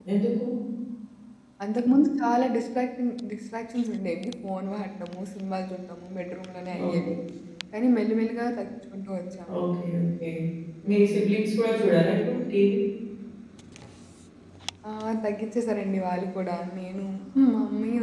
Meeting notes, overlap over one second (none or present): none